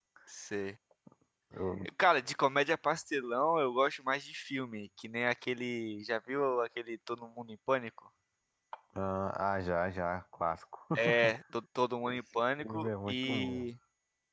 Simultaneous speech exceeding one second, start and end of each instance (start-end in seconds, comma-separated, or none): 12.1-13.7